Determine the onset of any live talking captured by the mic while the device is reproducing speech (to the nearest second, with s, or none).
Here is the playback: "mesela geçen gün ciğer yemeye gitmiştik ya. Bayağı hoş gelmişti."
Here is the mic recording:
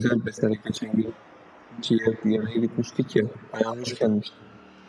none